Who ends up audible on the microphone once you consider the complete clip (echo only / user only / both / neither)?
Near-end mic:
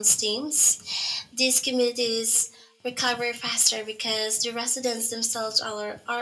echo only